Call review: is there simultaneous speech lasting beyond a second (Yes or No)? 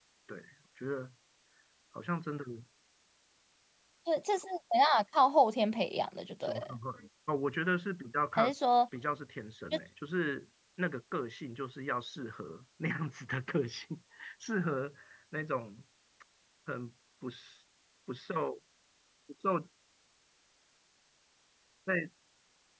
No